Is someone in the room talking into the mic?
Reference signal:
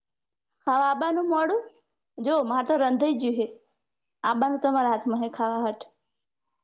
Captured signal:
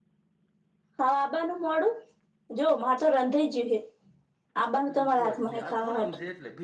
Yes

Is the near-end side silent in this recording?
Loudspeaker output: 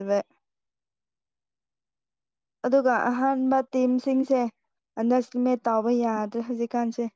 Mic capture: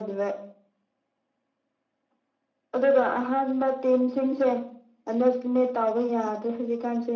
Yes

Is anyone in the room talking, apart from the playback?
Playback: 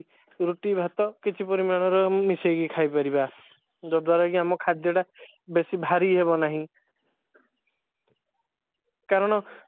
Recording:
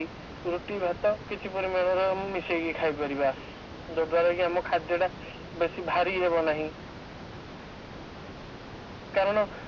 No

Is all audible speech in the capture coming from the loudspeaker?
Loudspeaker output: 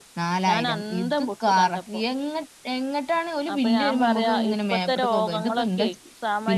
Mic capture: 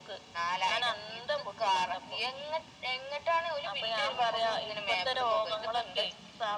Yes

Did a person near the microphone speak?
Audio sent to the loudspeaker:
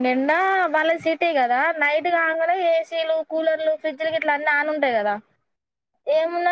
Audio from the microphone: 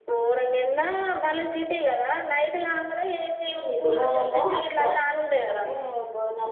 Yes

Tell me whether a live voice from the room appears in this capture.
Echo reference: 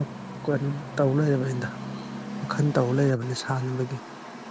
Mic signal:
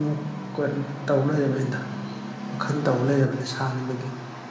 No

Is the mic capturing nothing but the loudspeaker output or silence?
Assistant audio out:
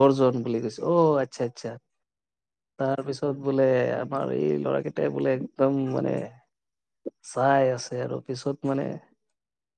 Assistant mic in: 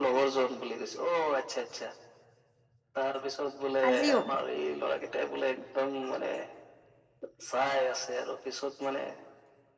No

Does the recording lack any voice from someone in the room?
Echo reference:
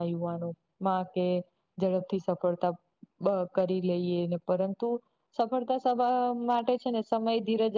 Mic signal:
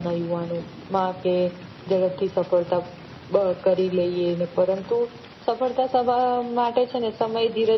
Yes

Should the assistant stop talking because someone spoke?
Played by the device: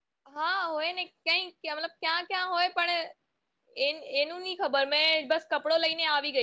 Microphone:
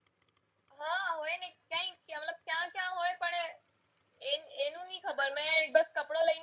No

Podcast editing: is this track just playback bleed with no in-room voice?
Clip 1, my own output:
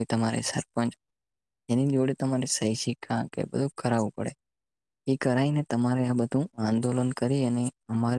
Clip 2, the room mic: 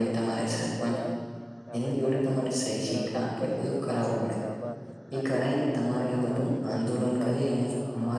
No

